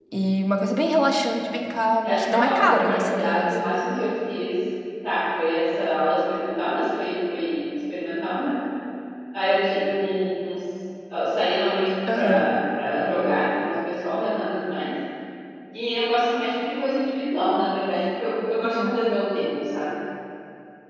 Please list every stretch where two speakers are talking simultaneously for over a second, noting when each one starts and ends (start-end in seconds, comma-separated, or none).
2.0-3.7